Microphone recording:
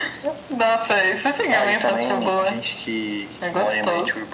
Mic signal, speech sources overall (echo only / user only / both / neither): echo only